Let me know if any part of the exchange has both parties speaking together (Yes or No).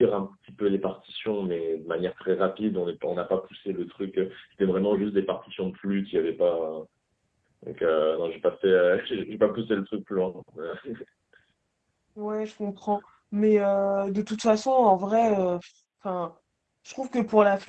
No